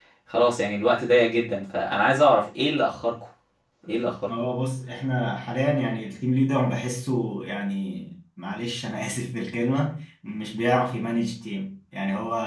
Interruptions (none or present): none